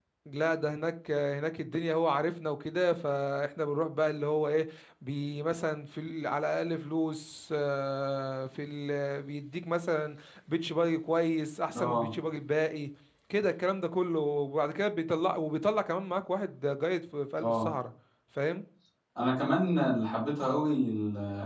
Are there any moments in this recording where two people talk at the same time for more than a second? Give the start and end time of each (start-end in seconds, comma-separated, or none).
none